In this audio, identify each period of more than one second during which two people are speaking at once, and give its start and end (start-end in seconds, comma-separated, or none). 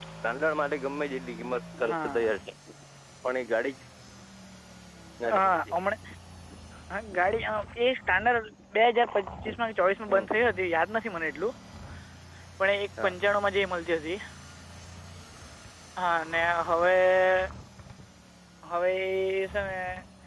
none